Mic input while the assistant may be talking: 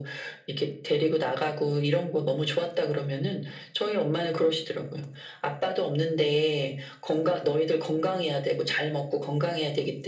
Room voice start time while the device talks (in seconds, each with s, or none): none